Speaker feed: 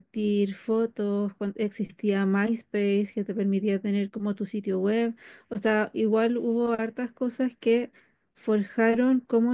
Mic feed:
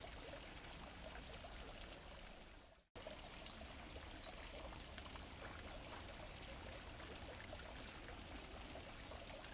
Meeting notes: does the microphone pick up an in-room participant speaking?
No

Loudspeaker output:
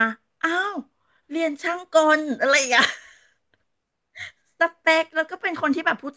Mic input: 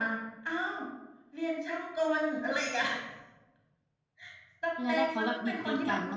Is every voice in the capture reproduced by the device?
No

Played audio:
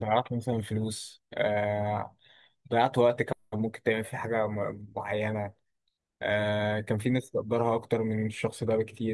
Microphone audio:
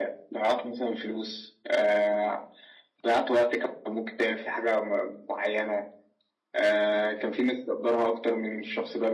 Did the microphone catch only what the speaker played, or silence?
Yes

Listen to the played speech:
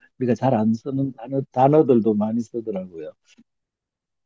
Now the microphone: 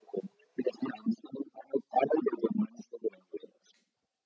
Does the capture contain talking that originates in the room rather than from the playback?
No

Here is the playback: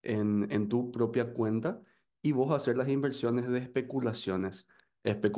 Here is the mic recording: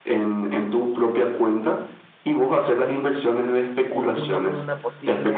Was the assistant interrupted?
Yes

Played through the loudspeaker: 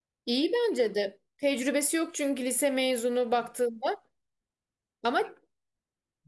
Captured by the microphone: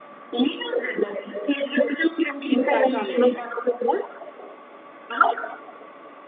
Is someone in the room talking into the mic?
Yes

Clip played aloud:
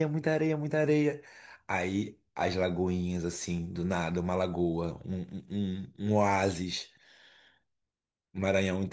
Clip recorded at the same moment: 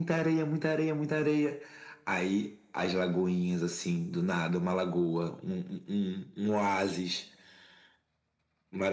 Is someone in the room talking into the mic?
No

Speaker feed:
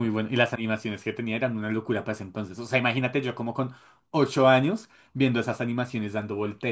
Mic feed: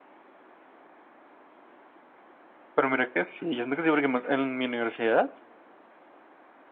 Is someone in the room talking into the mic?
Yes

